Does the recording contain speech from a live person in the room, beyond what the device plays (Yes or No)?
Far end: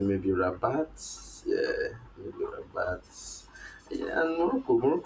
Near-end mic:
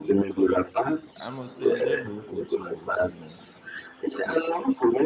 Yes